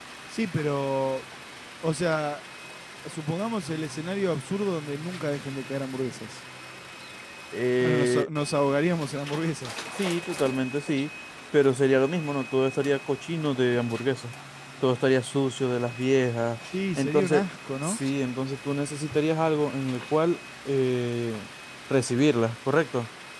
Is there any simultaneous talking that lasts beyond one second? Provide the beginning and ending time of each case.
none

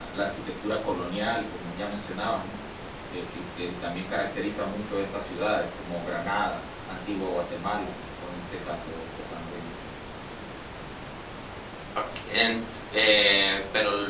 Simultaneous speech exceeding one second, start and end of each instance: none

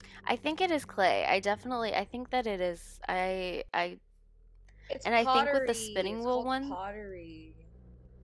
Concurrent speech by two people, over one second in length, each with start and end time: 5.2-6.8

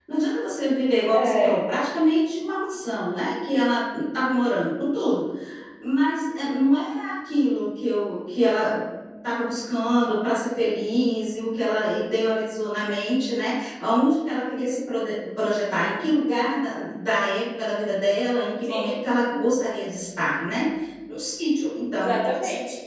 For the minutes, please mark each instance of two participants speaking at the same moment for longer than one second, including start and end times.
none

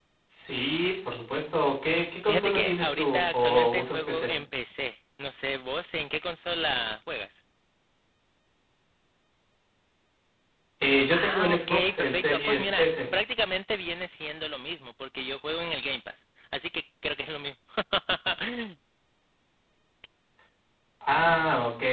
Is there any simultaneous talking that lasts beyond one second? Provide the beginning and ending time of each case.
2.2-4.4, 11.2-12.9

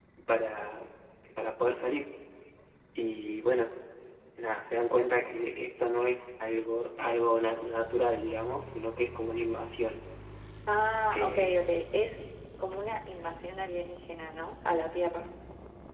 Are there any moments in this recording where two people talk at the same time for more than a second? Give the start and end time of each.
none

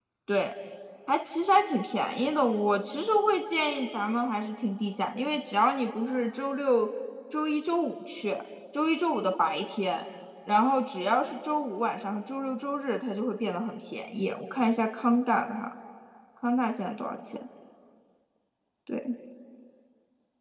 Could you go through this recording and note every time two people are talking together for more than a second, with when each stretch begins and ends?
none

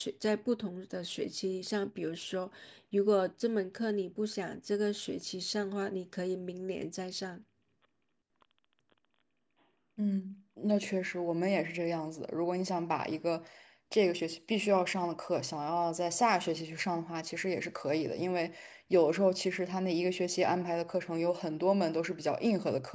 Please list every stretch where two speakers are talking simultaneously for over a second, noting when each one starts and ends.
none

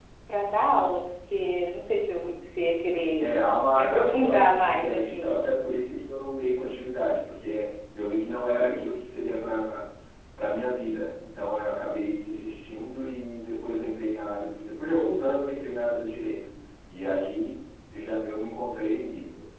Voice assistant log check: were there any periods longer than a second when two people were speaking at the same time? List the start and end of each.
3.8-5.3

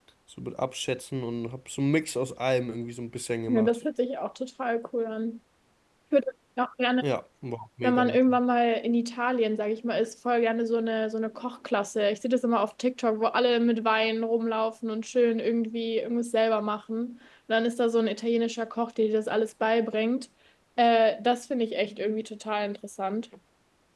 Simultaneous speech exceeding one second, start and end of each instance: none

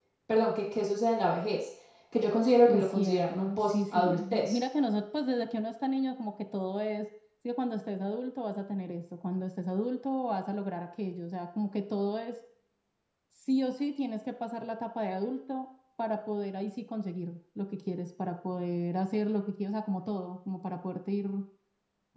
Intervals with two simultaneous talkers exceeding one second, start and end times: 2.7-4.6

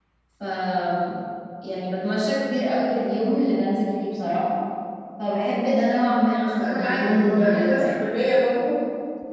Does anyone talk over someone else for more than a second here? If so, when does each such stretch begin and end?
6.4-8.1

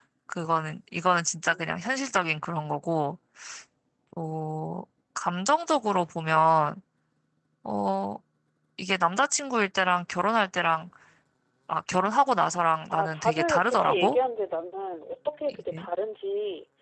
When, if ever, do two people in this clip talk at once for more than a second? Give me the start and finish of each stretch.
12.9-14.2

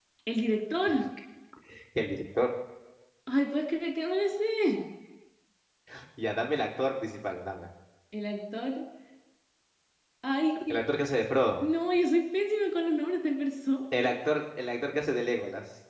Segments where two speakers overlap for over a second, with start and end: none

